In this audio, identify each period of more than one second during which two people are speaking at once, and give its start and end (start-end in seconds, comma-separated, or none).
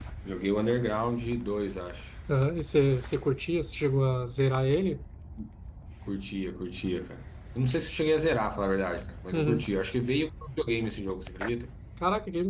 none